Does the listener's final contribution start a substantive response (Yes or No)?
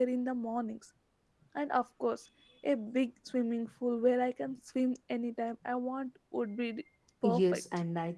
Yes